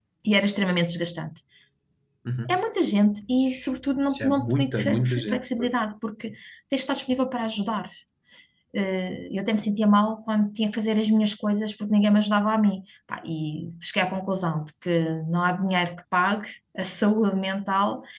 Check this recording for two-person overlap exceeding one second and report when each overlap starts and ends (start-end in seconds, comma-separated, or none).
4.1-5.7